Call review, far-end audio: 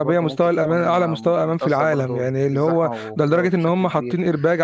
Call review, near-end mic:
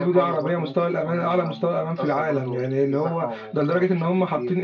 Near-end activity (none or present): none